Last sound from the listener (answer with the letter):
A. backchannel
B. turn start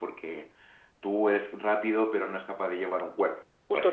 B